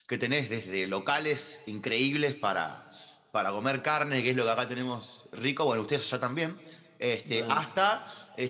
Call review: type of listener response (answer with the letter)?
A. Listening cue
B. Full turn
A